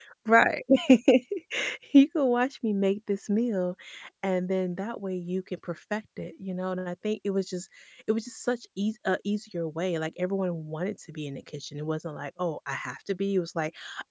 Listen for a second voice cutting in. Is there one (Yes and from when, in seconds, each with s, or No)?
No